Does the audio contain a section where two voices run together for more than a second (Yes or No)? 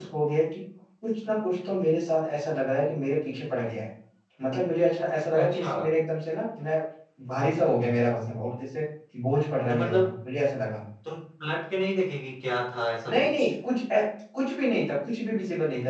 No